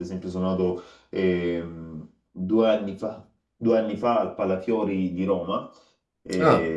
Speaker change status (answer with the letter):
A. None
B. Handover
A